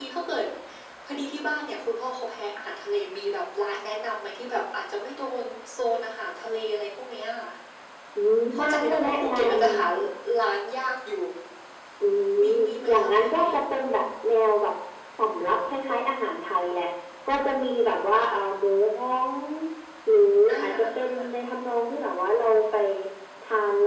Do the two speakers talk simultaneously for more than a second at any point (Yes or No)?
Yes